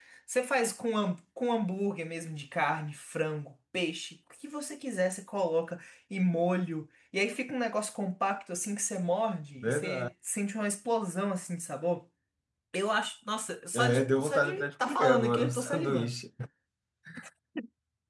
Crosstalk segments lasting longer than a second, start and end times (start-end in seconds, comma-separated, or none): 13.7-16.2